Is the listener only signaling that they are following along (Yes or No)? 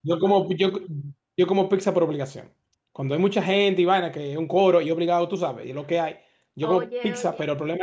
Yes